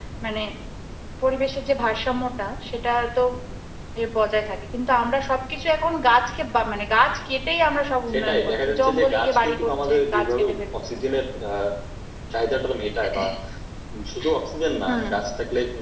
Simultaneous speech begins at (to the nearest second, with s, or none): 8 s